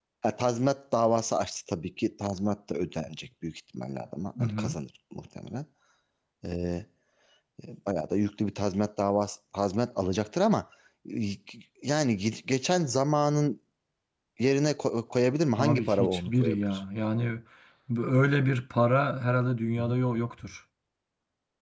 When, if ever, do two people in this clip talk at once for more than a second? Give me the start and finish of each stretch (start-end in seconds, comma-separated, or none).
15.6-16.8